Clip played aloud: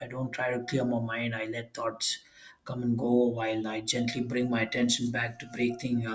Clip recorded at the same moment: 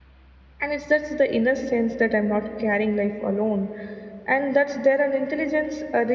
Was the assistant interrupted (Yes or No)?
Yes